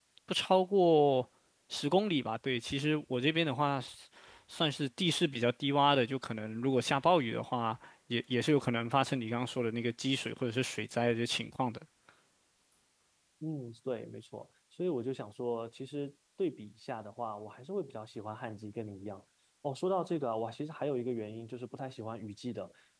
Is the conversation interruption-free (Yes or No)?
Yes